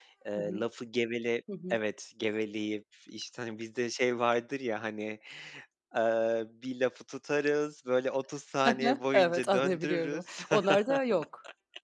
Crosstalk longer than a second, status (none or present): present